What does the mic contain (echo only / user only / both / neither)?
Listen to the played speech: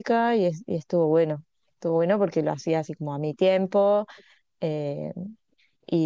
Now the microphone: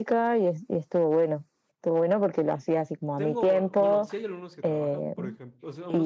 both